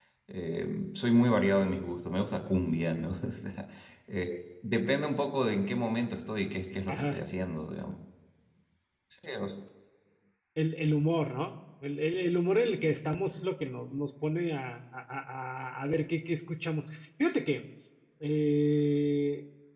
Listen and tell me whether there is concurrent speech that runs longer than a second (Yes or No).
No